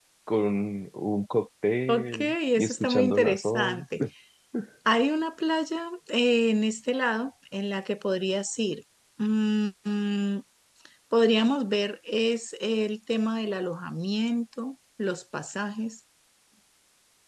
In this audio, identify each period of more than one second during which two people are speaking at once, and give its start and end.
1.9-3.8

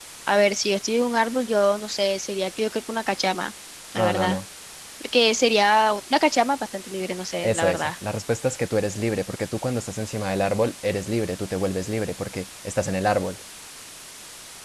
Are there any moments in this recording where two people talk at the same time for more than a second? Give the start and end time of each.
none

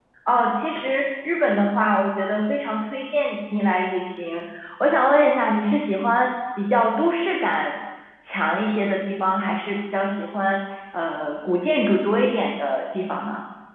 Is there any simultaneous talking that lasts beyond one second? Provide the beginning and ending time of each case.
none

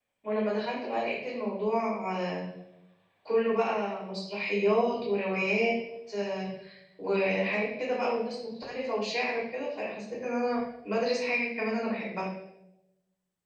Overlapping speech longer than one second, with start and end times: none

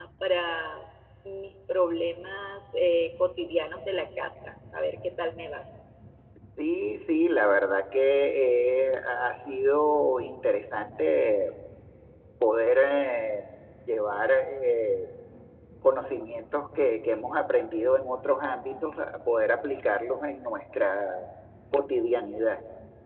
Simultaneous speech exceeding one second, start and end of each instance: none

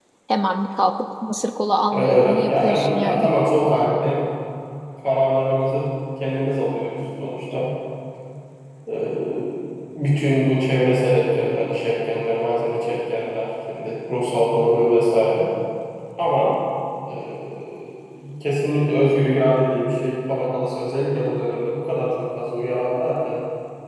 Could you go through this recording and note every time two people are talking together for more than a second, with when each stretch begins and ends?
1.9-3.2

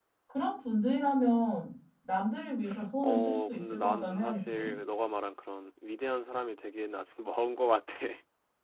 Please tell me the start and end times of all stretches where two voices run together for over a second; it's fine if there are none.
3.0-4.7

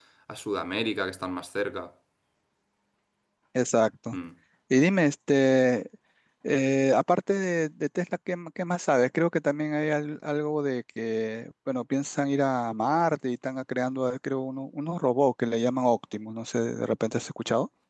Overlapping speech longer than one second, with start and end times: none

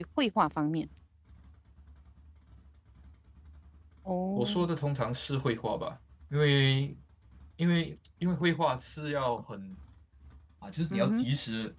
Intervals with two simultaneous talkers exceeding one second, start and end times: none

